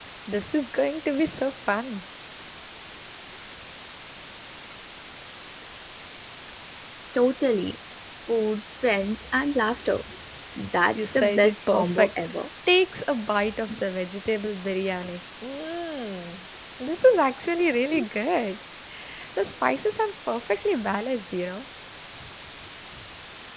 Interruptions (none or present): present